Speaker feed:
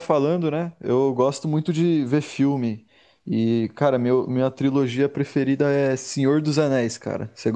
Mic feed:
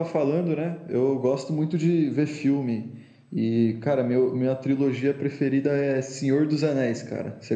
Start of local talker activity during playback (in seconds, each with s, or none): none